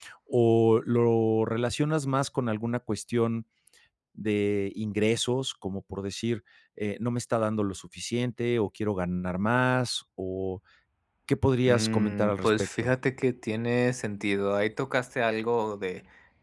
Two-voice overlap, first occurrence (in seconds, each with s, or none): 11.7 s